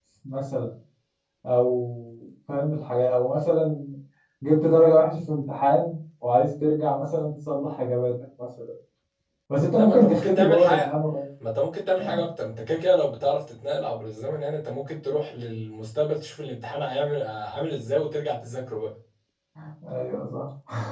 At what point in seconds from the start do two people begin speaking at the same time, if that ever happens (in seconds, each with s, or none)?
9.7 s